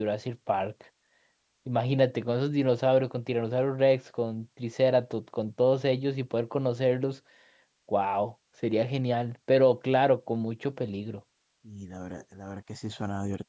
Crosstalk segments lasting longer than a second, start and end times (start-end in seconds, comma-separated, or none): none